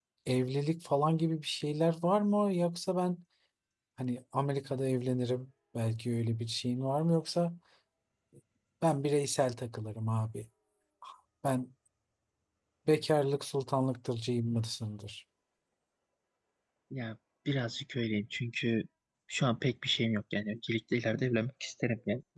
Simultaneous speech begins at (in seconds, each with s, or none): none